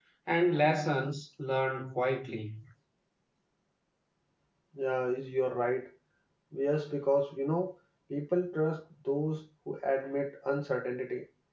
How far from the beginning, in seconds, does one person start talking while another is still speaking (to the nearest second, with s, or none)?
none